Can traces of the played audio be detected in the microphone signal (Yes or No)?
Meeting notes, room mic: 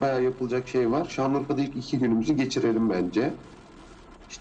Yes